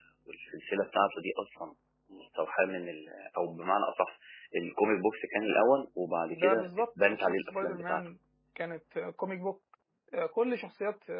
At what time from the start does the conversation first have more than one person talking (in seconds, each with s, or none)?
6.3 s